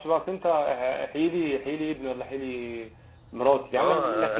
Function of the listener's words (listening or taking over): taking over